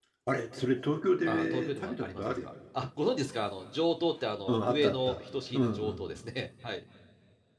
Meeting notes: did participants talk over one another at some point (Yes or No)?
Yes